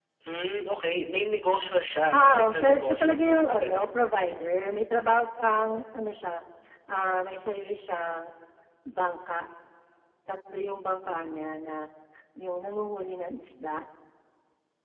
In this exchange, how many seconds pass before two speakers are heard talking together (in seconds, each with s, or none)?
2.1 s